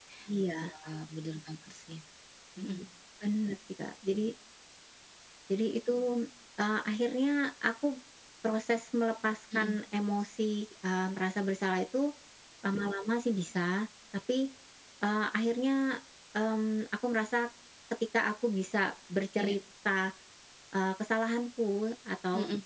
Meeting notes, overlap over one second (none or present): none